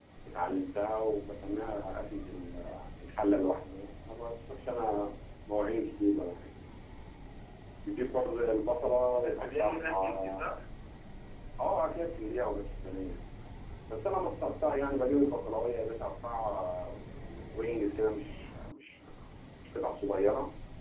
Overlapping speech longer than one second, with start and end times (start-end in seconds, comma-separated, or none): 9.2-10.4